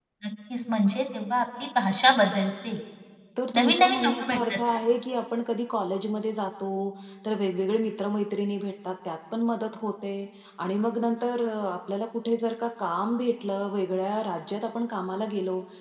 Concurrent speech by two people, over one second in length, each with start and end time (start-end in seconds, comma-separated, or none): 3.5-4.8